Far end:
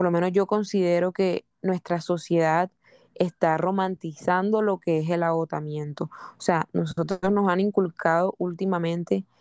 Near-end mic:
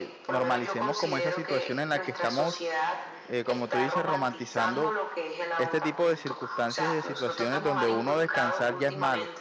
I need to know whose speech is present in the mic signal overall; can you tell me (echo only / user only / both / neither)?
both